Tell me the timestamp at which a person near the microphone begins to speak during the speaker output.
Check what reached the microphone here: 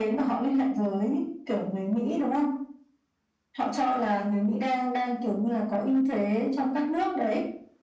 none

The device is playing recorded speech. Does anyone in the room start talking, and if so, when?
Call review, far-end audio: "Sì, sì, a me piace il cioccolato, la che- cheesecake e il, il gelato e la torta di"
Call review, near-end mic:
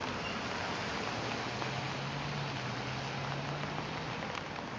none

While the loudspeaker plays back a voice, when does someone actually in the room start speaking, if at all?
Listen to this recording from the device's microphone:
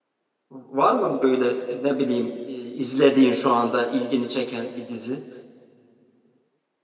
0.5 s

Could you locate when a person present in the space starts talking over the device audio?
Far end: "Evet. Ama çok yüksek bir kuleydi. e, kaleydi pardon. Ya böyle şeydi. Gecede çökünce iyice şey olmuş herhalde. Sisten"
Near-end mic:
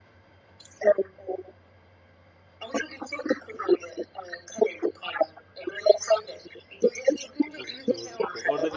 7.5 s

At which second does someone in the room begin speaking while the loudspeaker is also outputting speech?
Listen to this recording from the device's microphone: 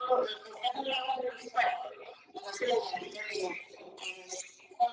none

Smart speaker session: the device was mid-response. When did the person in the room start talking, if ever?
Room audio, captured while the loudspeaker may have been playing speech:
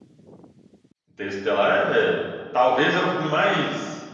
1.1 s

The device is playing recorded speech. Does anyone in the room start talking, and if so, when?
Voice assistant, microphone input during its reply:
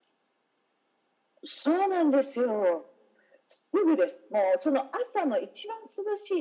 none

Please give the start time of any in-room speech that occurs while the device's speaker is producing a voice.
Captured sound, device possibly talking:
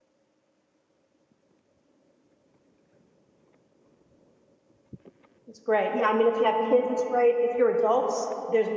5.4 s

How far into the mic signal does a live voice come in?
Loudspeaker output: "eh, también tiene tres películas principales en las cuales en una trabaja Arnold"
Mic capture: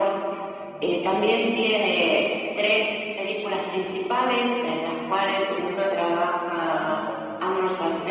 6.5 s

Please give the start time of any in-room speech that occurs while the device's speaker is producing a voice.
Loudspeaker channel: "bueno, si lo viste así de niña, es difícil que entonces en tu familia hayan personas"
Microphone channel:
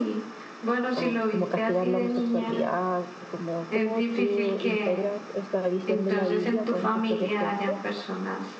0.9 s

